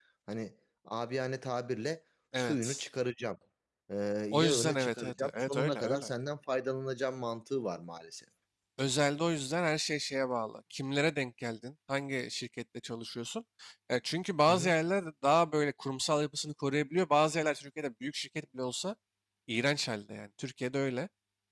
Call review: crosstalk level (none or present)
present